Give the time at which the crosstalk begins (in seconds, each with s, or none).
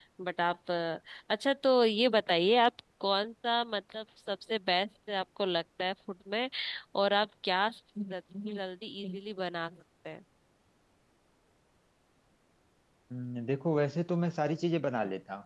none